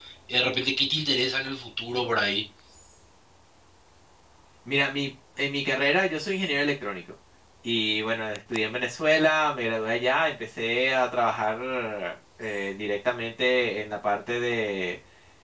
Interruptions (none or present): none